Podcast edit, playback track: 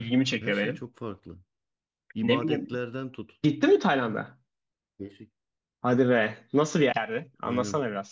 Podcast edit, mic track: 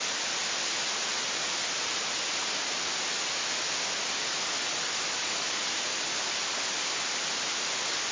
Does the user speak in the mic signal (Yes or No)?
No